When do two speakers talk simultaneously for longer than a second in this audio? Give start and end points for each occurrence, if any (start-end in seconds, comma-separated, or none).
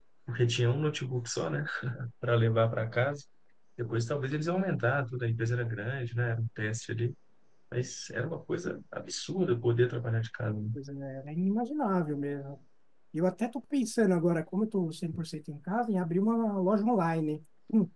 none